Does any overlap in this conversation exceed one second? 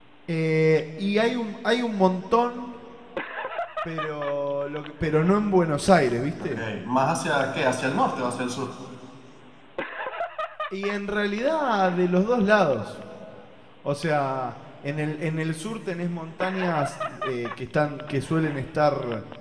No

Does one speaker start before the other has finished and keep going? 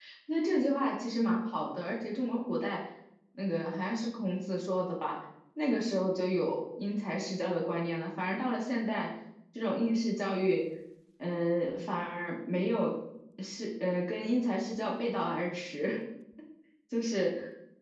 No

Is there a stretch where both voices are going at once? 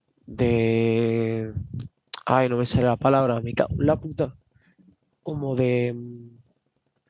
No

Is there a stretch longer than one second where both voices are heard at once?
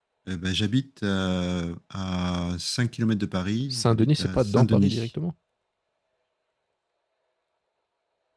Yes, from 3.7 s

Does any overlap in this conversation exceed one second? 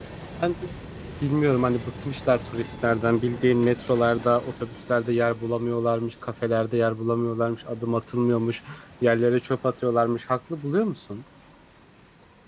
No

